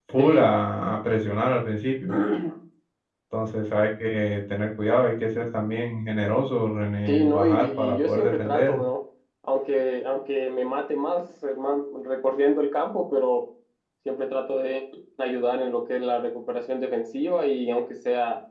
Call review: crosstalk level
present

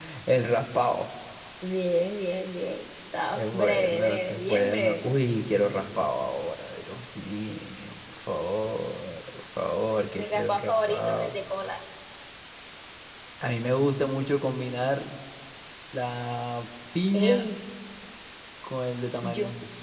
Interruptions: present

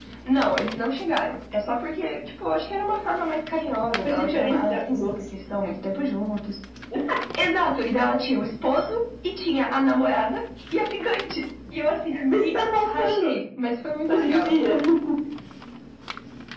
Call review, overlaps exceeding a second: present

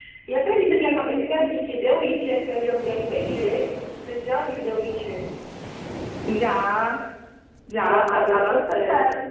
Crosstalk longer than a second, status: present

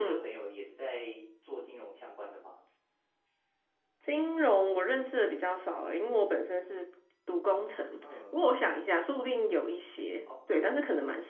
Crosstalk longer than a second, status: none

